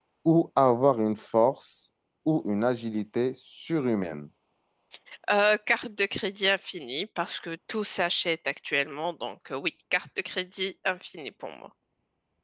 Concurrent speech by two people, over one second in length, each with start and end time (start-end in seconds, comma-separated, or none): none